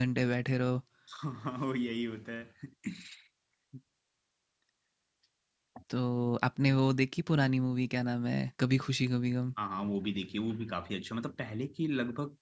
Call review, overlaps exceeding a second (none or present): none